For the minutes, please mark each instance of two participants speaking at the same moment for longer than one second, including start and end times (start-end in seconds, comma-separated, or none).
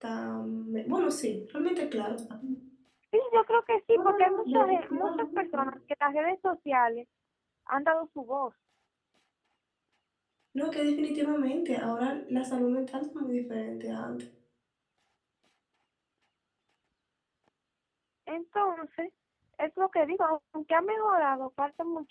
3.9-5.7